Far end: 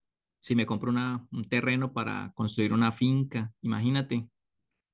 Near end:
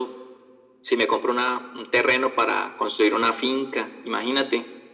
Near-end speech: none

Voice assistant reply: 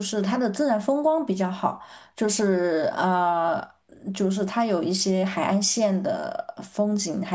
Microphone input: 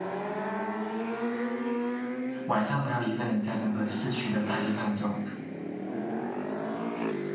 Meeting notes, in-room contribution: present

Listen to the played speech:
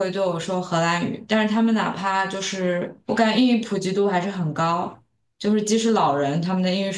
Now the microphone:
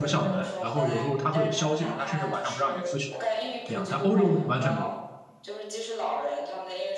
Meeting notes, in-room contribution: present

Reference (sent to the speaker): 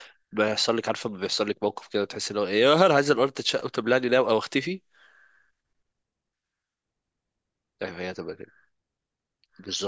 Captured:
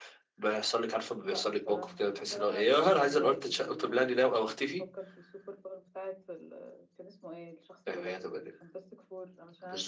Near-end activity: present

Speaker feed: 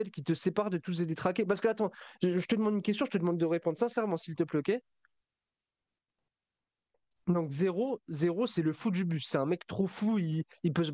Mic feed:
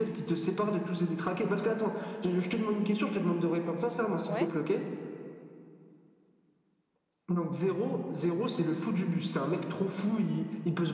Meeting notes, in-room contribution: present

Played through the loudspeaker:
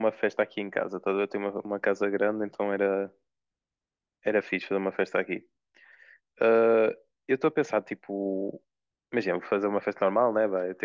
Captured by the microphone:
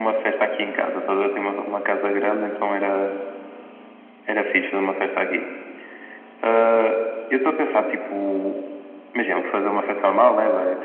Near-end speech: none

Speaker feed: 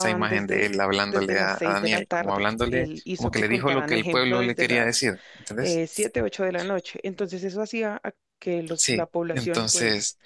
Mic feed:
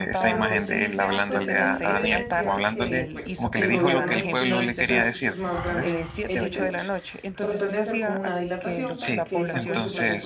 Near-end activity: present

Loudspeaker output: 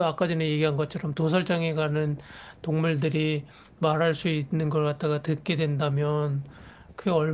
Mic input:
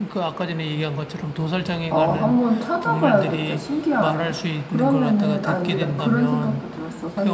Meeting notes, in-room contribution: present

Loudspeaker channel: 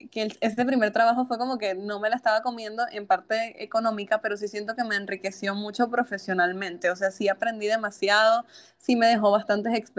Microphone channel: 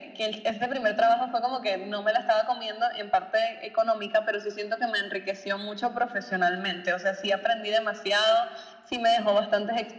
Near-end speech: none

